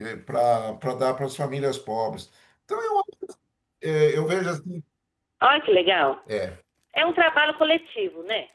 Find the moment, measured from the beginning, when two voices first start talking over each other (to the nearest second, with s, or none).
none